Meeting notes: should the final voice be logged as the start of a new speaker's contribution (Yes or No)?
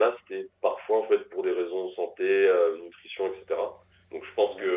No